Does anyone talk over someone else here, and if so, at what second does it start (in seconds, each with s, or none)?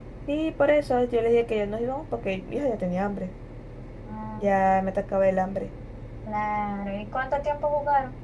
none